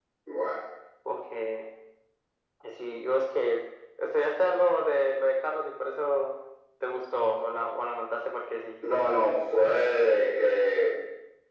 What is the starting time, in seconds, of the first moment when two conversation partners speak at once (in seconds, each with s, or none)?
none